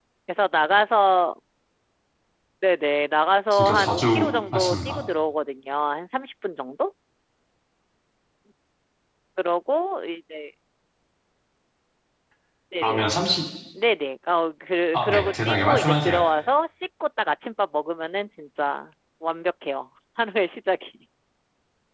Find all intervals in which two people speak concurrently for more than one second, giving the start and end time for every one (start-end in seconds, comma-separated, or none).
3.5-5.0, 14.9-16.2